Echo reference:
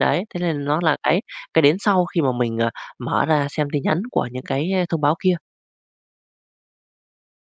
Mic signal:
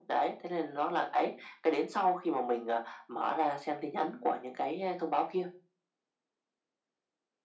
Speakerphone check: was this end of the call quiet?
Yes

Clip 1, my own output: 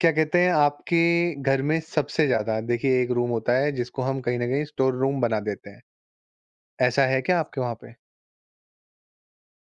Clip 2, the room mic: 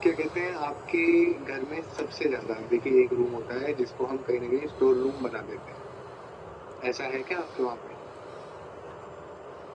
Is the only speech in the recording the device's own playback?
Yes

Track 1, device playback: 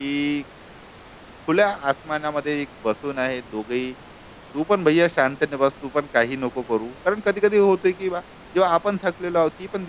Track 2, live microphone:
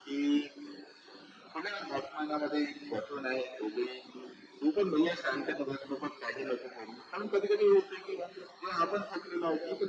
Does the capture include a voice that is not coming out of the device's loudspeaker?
No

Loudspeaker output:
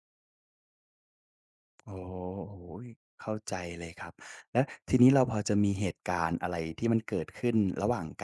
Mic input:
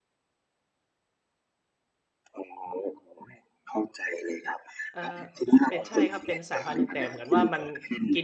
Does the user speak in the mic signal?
Yes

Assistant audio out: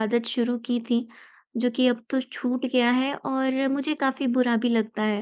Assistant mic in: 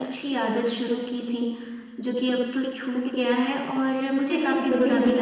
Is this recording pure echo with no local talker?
No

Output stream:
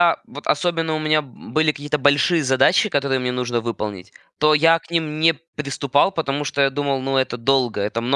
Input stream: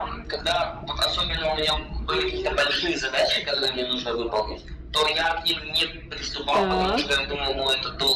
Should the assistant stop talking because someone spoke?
Yes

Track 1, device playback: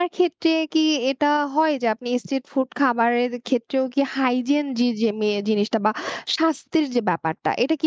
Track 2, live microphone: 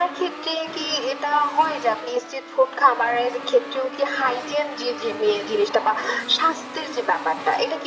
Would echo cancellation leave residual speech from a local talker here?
No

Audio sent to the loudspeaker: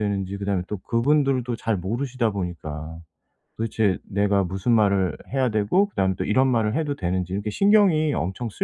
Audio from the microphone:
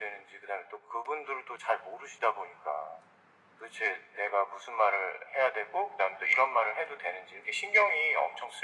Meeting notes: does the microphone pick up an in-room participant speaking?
No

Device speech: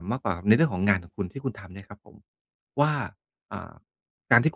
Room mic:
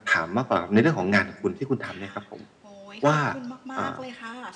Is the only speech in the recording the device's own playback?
No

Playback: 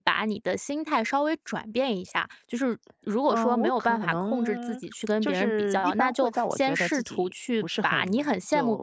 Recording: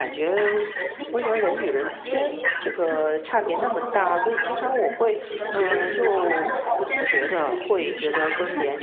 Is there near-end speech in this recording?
Yes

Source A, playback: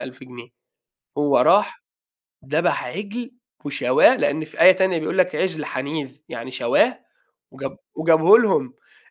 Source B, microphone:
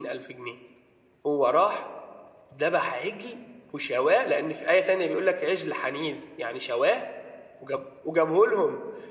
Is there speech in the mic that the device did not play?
No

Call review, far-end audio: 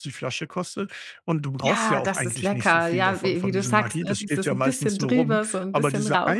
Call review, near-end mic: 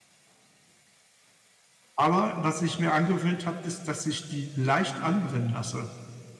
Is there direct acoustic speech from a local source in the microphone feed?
Yes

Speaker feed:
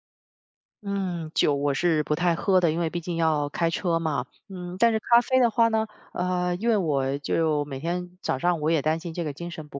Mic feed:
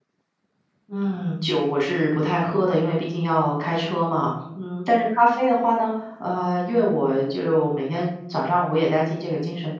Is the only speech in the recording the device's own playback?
Yes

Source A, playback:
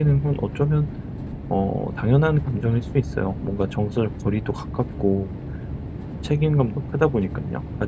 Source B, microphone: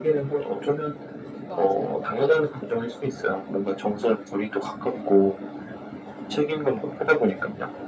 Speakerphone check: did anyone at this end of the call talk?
Yes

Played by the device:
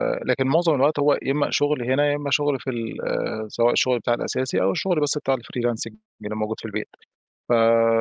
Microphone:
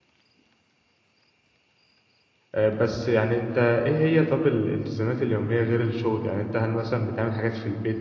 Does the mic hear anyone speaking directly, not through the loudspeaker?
Yes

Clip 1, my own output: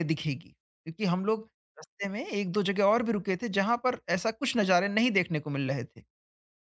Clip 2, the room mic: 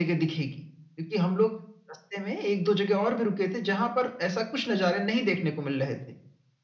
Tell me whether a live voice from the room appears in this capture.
No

